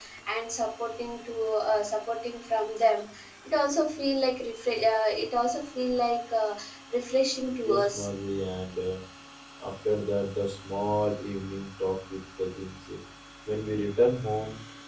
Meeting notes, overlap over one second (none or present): none